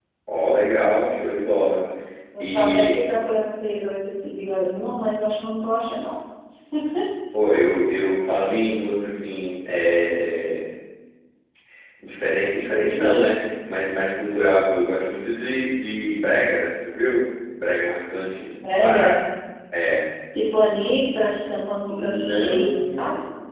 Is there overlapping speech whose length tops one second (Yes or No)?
Yes